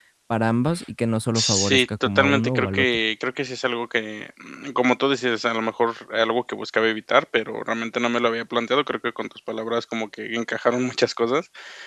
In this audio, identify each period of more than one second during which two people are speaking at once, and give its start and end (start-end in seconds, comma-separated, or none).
1.4-2.9